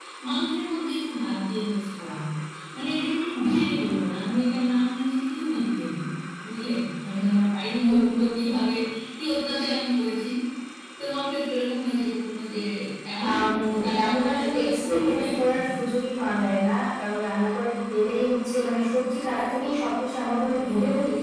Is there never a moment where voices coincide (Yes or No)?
No